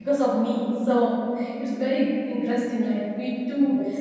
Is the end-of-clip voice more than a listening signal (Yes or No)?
No